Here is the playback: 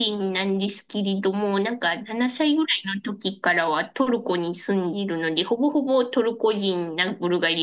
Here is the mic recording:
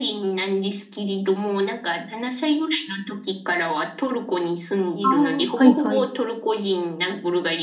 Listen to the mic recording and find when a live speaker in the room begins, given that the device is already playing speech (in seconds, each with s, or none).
5.0 s